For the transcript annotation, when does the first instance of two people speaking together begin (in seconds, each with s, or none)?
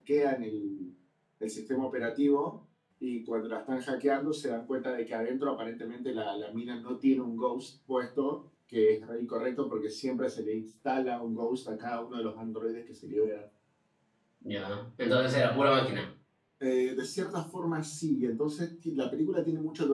none